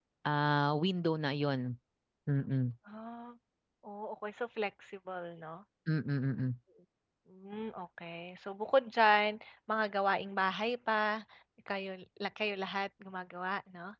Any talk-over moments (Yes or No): No